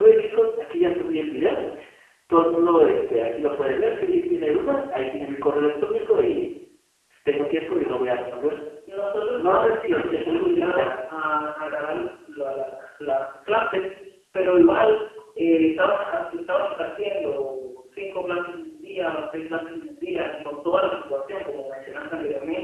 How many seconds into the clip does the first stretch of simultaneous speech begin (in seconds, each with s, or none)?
9.4 s